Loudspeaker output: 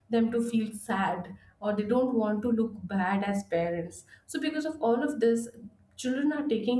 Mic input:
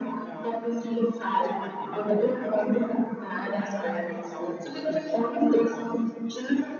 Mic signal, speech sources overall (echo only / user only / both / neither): both